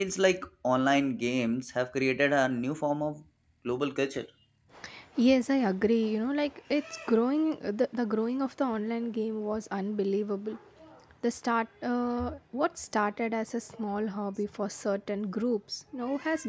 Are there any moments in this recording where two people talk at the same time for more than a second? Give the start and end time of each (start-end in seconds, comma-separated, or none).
none